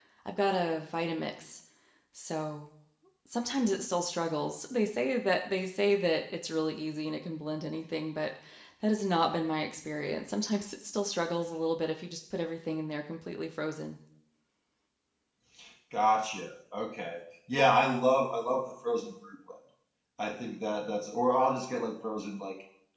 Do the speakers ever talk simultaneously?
No

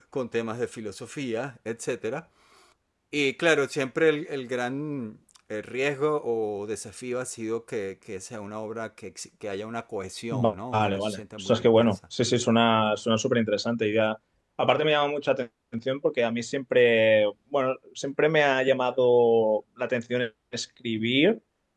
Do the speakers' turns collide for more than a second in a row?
Yes, from 10.3 s

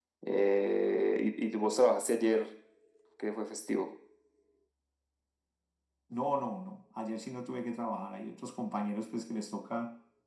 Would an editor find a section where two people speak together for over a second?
No

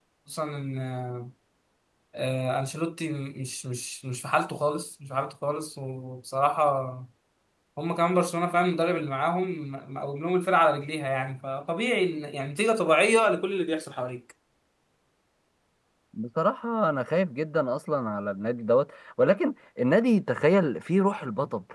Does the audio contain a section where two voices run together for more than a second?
No

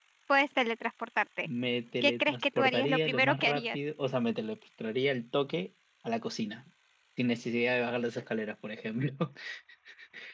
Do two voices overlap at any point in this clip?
Yes, from 2.0 s

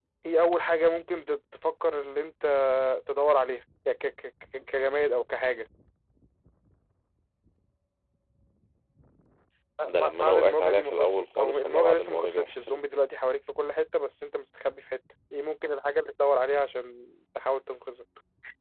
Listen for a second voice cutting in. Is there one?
Yes, from 10.0 s

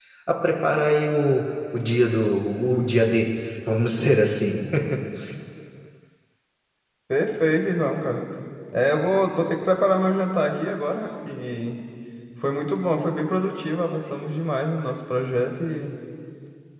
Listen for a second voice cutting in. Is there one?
No

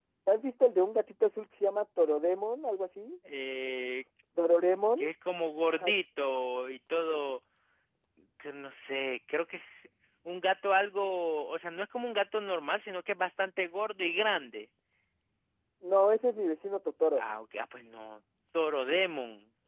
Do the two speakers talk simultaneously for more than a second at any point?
No

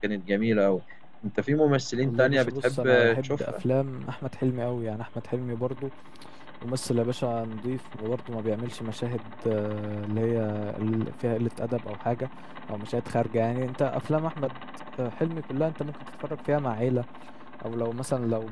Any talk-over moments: Yes, from 2.0 s

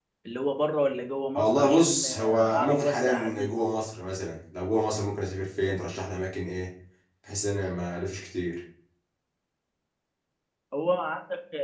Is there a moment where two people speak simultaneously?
Yes, from 1.3 s

